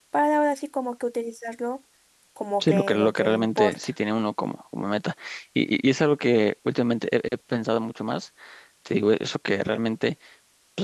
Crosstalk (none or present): present